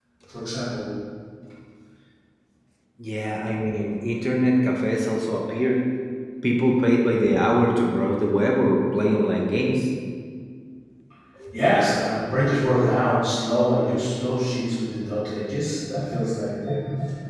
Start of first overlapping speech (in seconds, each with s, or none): none